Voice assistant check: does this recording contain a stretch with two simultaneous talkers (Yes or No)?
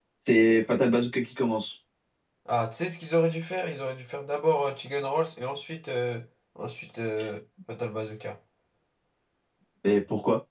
No